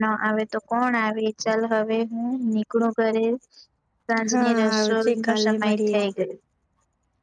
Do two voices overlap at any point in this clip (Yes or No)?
Yes